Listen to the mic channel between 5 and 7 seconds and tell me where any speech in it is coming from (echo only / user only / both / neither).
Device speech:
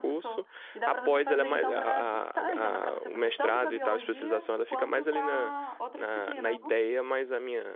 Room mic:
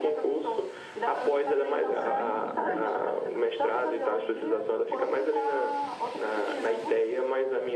echo only